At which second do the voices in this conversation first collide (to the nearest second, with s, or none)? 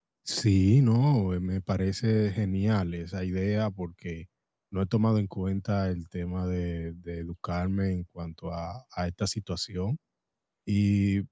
none